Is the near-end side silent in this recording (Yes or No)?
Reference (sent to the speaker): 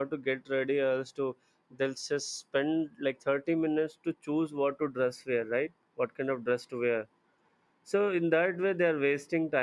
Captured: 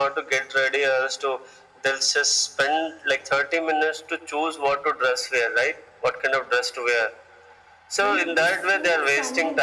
No